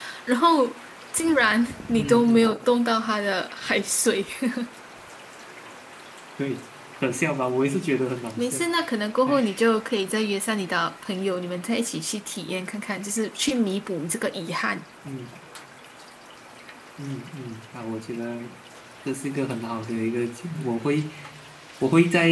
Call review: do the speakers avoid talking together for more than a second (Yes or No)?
Yes